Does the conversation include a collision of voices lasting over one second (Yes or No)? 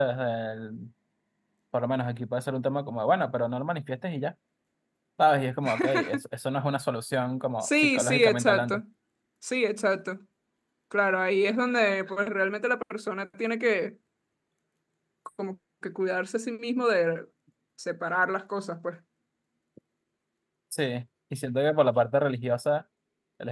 Yes